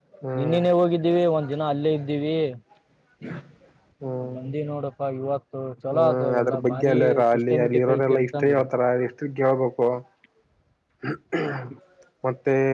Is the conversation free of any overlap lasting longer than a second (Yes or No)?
No